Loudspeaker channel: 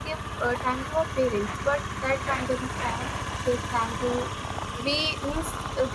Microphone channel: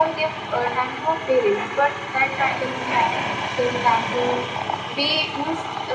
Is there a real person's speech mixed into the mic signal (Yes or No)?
No